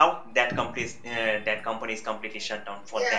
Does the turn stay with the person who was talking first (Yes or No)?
No